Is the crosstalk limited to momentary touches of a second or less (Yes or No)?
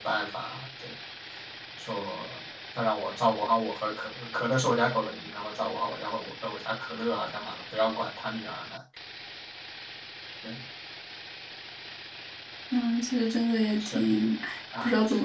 Yes